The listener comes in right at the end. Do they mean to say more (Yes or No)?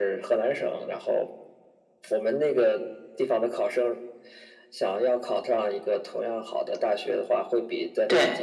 No